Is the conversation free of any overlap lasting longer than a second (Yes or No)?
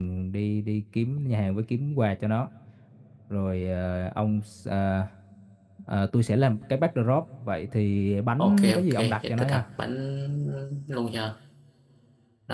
No